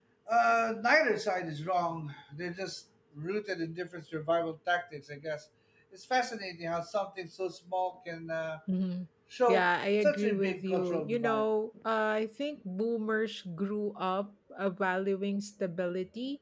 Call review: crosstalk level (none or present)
present